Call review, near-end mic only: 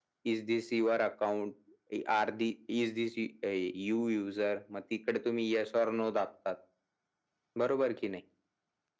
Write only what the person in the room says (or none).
none